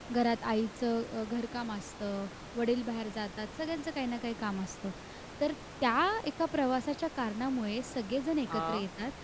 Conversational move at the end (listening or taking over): listening